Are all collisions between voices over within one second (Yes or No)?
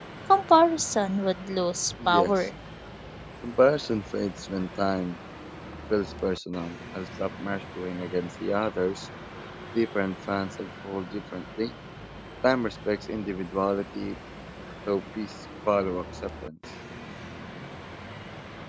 Yes